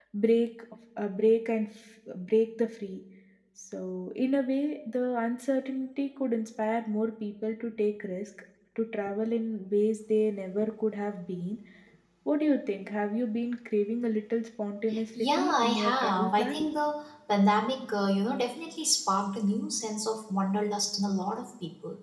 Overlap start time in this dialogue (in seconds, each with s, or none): 15.2 s